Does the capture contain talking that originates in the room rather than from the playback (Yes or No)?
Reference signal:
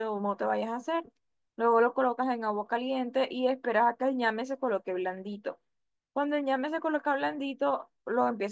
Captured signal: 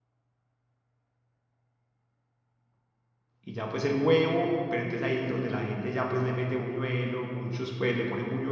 Yes